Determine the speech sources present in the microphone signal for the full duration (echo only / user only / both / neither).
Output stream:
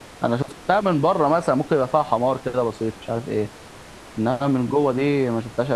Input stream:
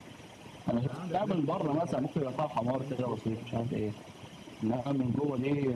both